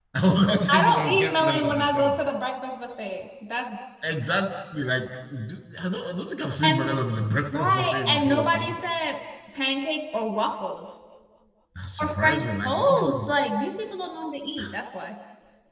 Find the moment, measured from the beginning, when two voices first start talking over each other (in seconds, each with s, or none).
0.7 s